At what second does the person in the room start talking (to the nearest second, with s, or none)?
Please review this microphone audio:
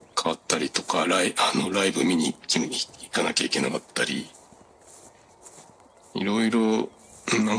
none